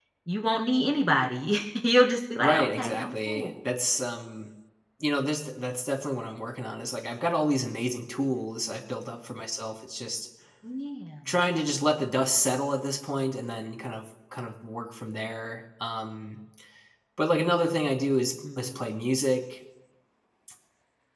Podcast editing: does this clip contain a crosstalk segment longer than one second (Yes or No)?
Yes